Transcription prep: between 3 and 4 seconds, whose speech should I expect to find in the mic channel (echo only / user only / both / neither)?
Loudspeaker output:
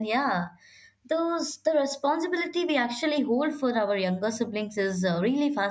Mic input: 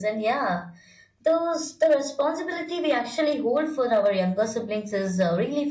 echo only